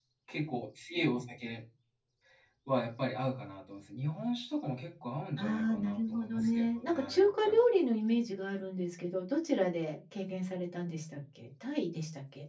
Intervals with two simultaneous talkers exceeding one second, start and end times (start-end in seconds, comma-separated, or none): 5.4-7.6